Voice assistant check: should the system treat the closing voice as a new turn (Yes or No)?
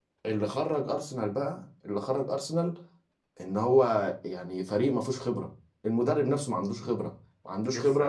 No